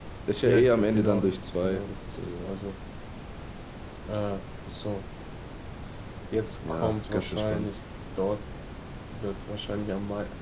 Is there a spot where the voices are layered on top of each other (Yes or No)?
Yes